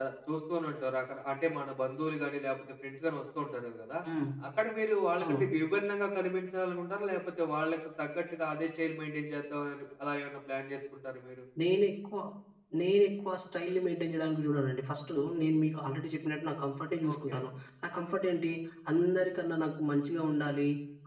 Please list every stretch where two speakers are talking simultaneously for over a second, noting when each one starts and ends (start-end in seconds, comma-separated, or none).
none